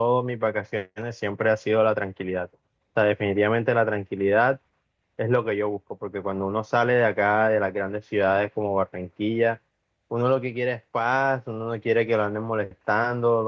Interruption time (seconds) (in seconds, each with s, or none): none